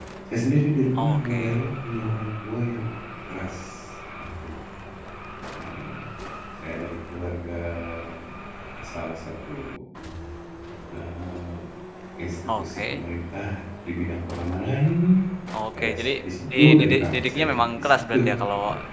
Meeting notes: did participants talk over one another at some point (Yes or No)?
Yes